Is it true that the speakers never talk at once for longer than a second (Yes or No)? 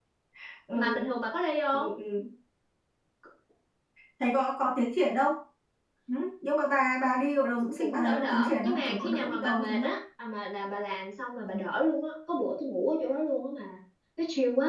No